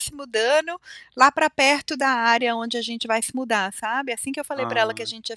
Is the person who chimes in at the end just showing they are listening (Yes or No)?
Yes